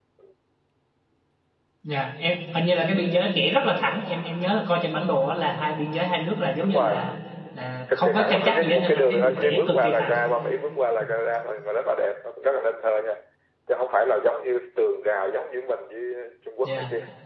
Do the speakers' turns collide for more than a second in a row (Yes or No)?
Yes